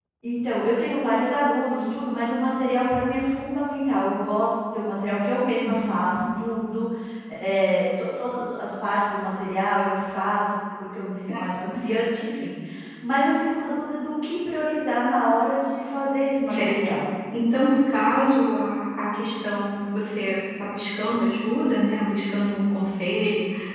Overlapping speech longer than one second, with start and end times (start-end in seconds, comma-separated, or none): none